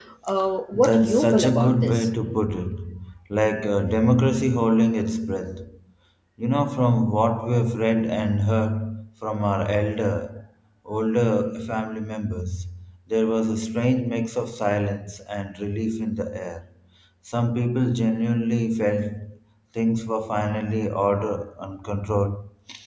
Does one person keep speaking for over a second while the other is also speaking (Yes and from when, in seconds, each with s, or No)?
Yes, from 0.7 s